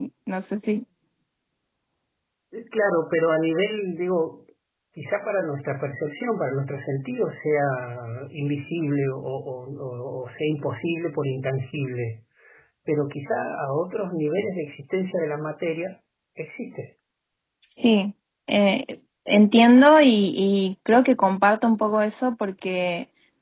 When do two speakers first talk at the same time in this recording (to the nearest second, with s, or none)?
none